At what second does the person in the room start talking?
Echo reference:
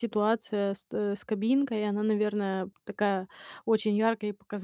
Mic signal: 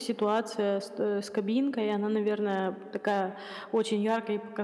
none

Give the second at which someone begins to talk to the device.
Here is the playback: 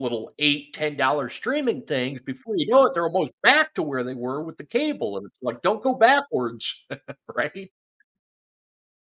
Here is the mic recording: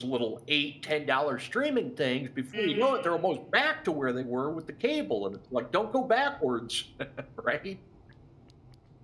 3 s

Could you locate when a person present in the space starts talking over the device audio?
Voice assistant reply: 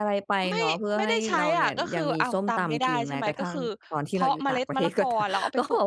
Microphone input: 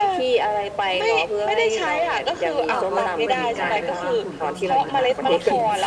3 s

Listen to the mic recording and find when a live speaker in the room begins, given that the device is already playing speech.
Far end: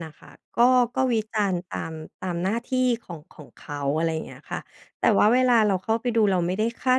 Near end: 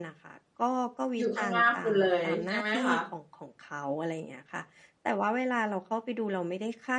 1 s

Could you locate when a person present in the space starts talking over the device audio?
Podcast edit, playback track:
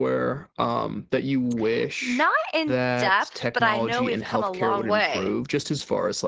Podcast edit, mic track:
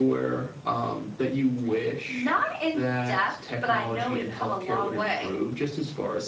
none

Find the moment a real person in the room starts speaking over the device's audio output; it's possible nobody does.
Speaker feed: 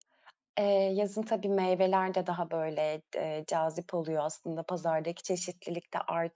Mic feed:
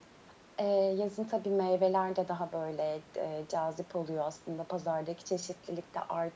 none

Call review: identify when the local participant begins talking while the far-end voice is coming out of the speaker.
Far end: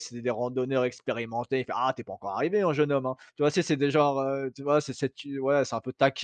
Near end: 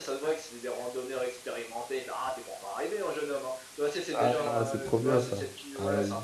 4 s

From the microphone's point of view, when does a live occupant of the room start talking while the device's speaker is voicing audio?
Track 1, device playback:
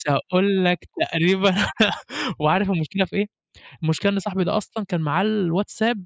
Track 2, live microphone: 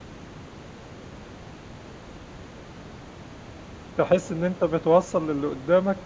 4 s

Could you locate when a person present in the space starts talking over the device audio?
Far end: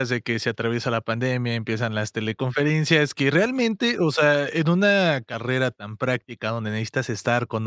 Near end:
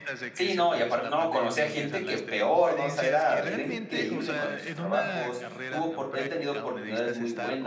0 s

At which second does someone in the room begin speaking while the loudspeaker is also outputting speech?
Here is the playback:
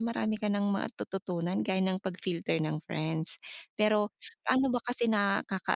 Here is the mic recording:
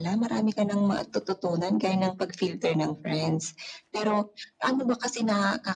none

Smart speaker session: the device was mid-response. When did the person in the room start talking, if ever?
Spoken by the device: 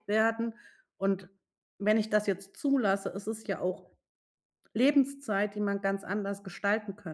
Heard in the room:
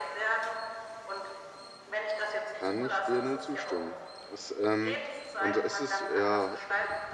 3 s

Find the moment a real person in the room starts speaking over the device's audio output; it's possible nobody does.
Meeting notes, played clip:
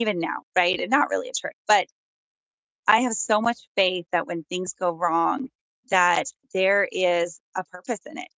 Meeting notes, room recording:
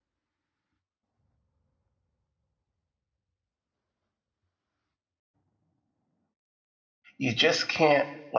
7 s

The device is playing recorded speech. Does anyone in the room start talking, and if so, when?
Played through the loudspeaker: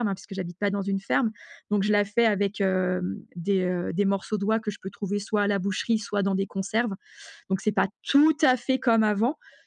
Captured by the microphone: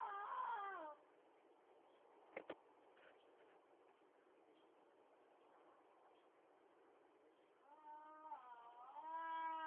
none

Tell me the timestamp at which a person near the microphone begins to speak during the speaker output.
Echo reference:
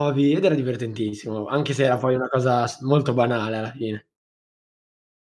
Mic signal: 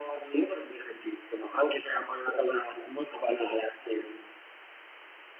none

